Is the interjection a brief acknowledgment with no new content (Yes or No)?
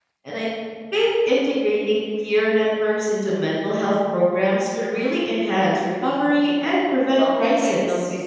No